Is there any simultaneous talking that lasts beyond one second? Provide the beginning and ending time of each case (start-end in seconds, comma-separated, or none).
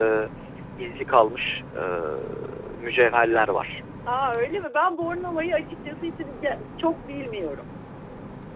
none